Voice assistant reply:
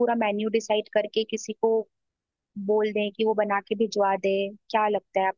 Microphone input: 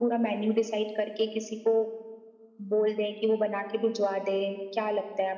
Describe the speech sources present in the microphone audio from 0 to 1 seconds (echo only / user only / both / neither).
echo only